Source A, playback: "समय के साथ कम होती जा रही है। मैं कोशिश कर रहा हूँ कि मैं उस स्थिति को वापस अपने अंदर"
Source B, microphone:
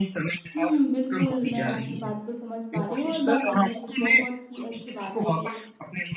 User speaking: Yes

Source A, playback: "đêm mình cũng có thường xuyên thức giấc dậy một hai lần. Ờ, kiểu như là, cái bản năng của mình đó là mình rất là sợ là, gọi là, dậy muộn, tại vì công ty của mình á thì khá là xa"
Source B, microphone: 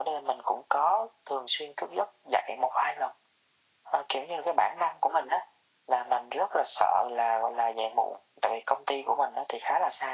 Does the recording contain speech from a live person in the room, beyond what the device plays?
No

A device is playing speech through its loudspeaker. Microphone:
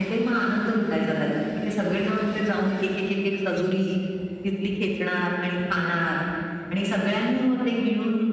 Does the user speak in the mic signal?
No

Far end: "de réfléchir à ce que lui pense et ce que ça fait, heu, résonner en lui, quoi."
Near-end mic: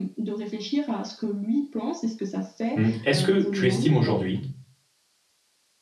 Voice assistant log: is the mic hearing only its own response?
No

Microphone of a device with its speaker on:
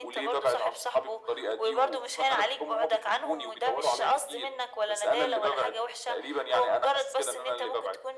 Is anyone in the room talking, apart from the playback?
No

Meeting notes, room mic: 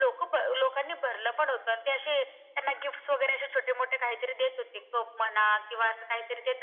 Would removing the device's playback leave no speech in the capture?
Yes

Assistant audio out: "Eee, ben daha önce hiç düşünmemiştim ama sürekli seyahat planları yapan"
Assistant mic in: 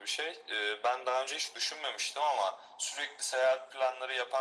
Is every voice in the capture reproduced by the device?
Yes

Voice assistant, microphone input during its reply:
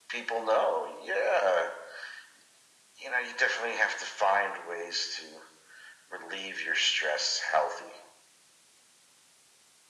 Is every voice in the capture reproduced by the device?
Yes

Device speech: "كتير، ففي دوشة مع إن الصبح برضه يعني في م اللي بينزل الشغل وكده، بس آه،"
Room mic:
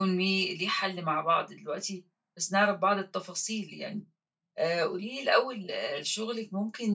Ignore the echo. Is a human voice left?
Yes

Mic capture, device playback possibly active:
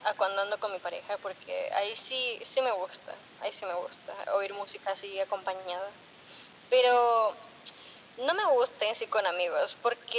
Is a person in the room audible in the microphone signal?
No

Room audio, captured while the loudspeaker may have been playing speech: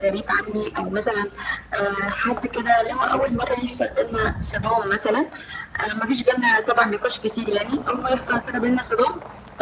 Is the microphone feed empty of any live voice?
Yes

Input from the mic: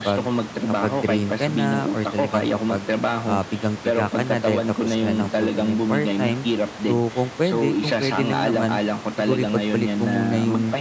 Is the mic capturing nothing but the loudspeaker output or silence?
No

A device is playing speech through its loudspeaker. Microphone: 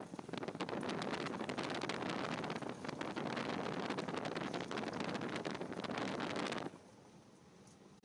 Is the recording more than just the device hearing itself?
No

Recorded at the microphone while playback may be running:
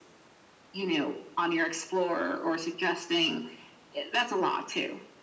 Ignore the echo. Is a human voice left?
No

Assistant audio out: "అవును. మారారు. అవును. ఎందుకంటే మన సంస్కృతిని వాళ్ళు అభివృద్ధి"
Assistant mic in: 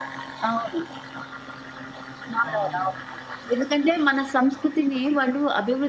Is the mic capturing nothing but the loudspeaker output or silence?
No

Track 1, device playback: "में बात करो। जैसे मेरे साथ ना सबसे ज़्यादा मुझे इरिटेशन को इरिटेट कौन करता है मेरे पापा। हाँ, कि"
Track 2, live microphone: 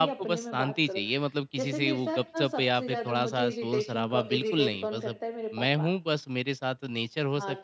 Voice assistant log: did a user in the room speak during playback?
Yes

